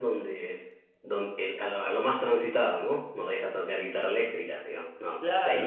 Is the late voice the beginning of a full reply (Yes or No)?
Yes